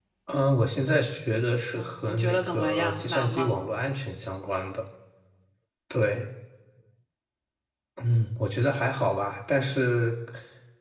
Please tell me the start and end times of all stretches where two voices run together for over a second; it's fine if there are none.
1.7-3.5

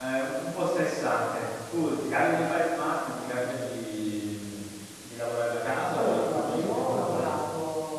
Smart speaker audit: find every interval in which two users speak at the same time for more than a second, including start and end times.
6.0-7.3

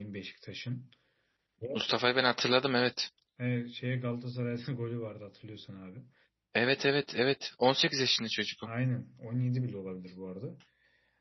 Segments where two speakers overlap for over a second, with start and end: none

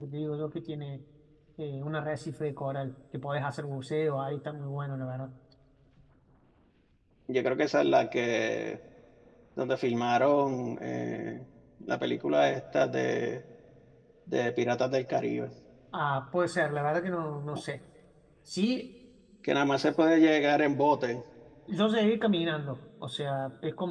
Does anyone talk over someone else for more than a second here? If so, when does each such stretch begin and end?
none

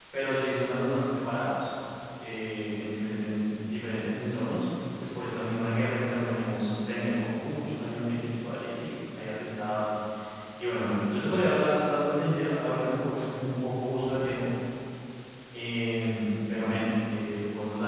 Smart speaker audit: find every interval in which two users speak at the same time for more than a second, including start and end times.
none

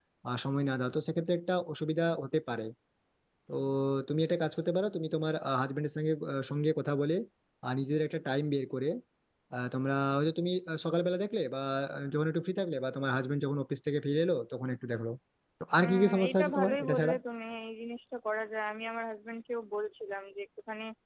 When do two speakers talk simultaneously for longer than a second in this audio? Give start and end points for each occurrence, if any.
15.8-17.1

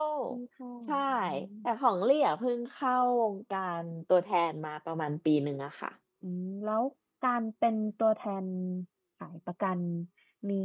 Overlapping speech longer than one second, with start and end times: none

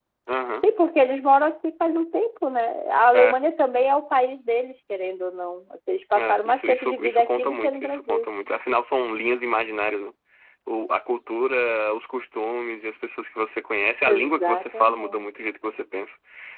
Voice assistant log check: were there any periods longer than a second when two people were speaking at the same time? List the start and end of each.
6.2-8.3, 14.1-15.3

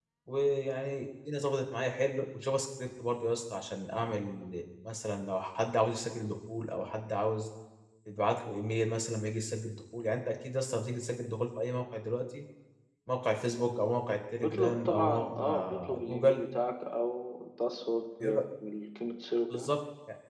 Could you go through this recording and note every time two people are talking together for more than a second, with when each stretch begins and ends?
14.4-16.4

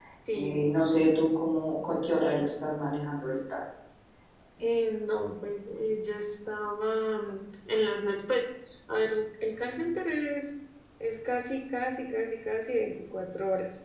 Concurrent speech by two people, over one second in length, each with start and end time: none

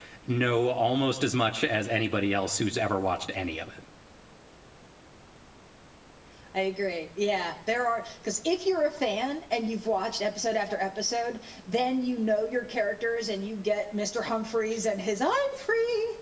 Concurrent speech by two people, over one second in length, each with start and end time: none

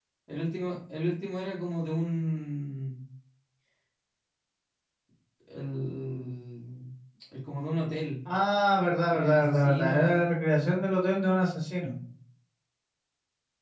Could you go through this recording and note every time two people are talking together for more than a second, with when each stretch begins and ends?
9.1-10.4

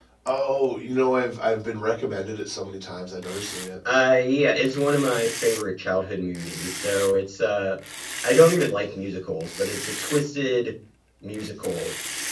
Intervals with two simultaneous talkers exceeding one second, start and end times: none

